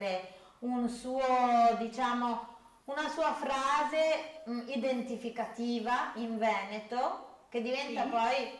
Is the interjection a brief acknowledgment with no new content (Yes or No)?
Yes